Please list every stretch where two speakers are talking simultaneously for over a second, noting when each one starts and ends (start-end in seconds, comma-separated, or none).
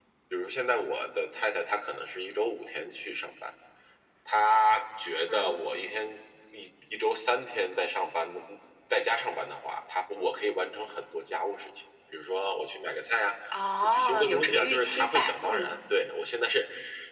13.9-15.7